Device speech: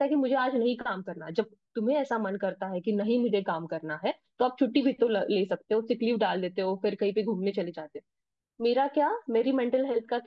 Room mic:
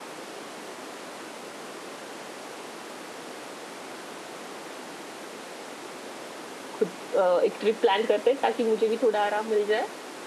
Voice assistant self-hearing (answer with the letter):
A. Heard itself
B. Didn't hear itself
B